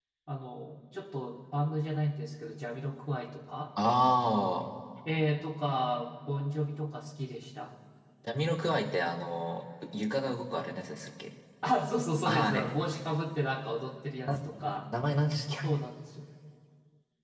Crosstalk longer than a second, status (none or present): none